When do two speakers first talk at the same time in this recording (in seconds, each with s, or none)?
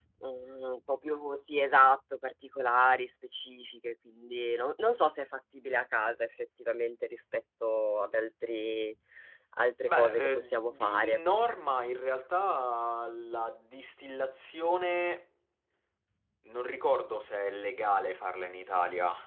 9.8 s